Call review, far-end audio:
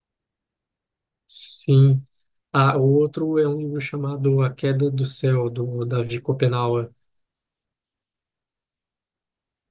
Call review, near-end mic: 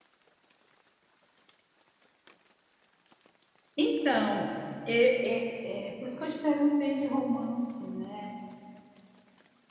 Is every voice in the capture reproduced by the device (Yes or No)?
No